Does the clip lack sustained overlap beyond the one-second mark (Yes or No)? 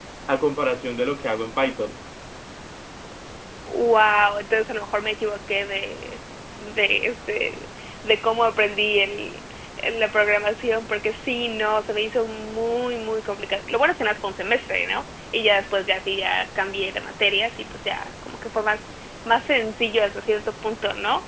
Yes